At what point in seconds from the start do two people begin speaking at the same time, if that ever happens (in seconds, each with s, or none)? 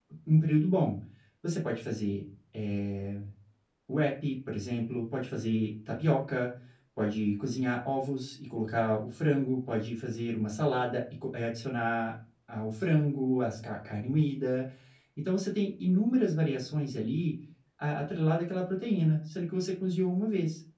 none